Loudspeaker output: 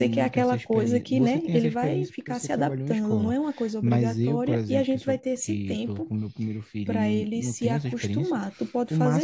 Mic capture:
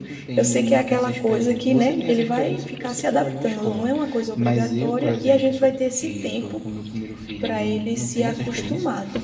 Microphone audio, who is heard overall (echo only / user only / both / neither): echo only